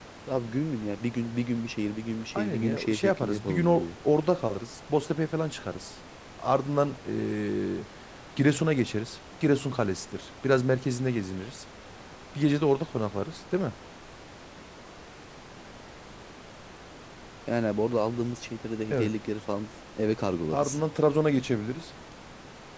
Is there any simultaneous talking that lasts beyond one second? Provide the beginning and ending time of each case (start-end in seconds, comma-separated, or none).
2.4-3.9